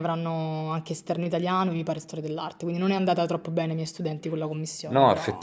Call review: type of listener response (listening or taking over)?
taking over